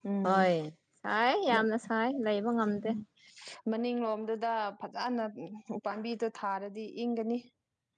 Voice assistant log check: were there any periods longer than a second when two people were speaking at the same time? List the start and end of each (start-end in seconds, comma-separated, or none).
none